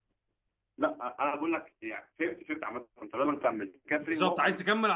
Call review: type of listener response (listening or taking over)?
taking over